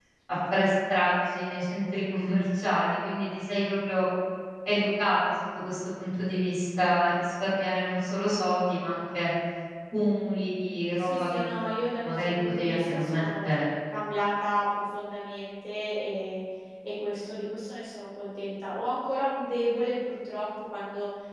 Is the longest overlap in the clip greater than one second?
Yes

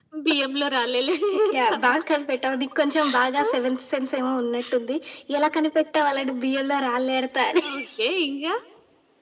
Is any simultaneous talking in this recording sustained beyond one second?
No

